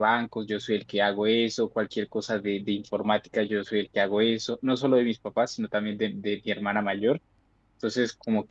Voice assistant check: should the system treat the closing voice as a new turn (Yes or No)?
No